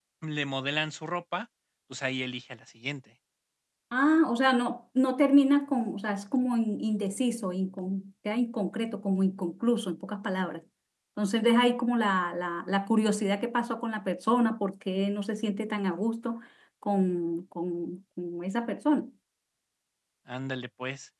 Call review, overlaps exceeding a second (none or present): none